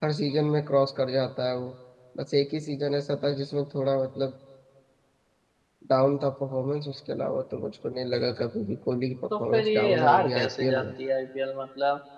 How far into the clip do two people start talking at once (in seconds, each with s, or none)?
9.3 s